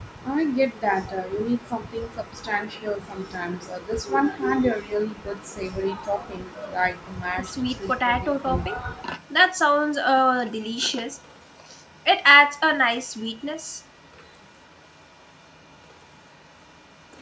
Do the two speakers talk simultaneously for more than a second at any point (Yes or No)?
Yes